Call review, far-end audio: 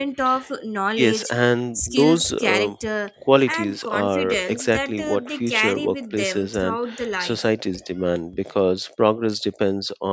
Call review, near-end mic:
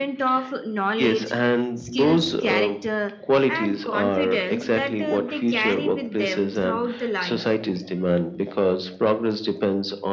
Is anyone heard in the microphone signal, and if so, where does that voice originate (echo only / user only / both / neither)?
echo only